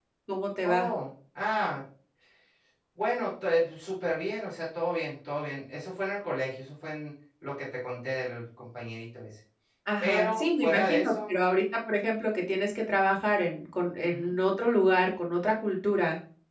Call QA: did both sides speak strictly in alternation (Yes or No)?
No